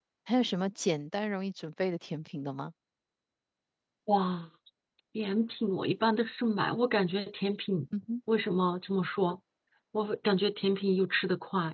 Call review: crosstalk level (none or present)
none